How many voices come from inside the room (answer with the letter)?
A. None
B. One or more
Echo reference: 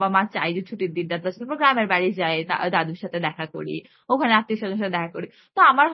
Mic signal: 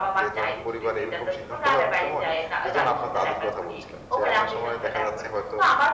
B